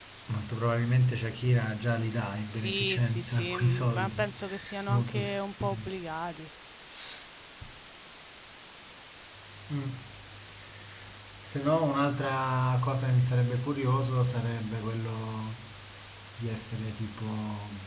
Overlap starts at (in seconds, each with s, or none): 2.4 s